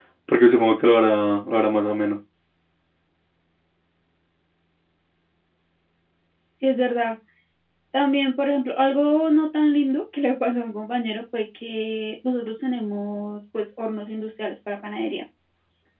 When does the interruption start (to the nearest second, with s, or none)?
none